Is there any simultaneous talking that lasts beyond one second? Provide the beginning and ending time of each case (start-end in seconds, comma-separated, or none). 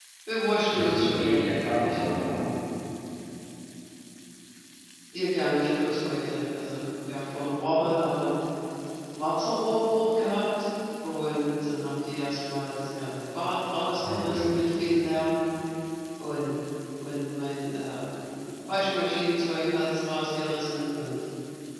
0.7-2.0